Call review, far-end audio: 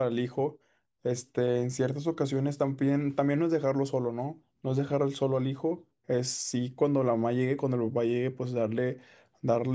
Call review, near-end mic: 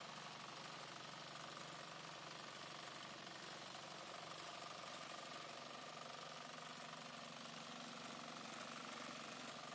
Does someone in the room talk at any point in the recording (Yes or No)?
No